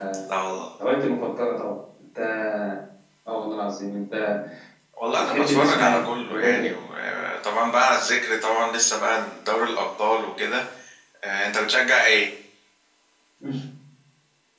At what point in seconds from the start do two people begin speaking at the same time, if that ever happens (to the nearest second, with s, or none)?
5 s